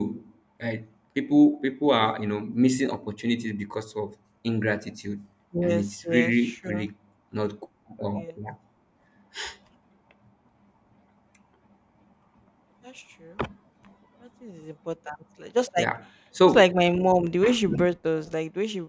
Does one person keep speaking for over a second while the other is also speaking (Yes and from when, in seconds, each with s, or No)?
Yes, from 5.6 s